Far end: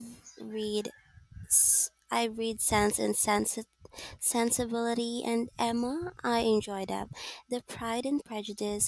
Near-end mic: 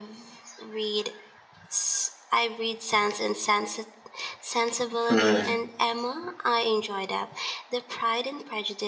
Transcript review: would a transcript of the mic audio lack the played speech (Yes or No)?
No